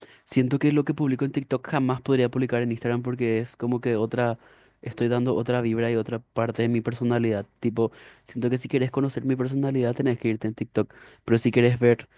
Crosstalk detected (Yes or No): No